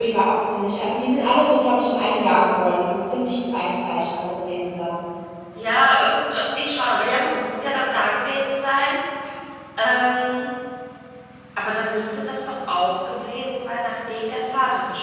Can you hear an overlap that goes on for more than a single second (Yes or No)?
No